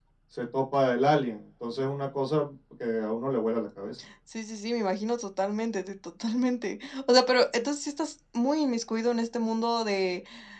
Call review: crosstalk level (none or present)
none